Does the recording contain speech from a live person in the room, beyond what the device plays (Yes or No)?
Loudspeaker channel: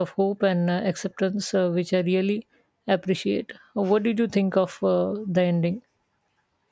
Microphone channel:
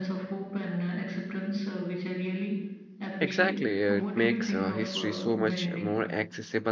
Yes